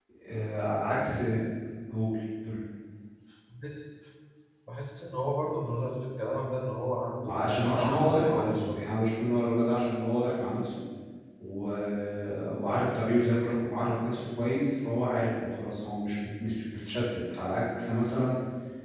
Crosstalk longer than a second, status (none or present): present